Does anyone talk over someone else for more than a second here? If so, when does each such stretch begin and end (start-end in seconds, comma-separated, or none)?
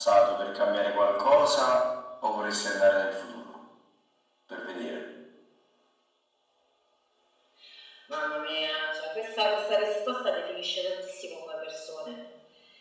none